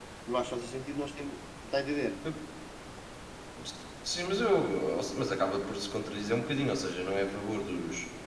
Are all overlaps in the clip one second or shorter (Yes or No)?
Yes